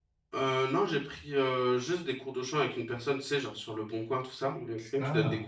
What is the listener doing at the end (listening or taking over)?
listening